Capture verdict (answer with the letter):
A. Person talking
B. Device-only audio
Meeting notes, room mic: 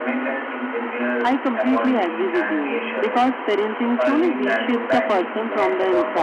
A